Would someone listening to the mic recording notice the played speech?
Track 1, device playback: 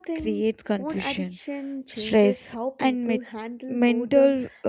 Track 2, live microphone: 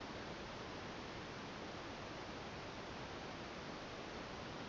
No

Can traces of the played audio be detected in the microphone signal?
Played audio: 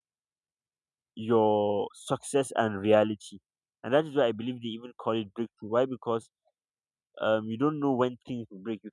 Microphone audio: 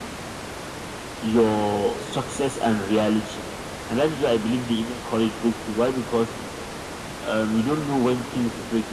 Yes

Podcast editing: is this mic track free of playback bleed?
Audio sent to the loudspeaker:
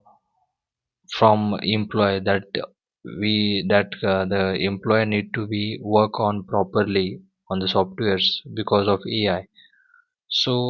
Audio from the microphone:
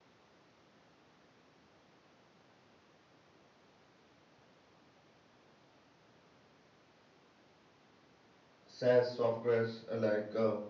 Yes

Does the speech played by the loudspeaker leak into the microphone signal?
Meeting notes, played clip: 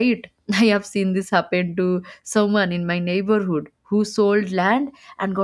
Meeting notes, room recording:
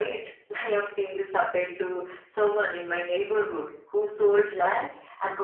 Yes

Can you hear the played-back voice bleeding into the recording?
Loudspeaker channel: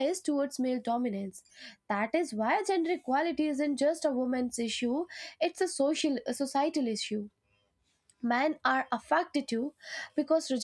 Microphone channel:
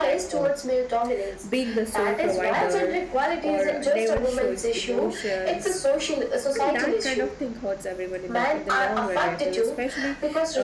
Yes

